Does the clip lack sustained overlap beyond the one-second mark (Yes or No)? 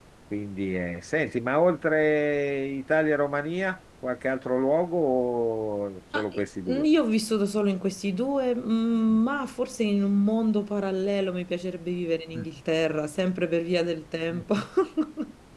Yes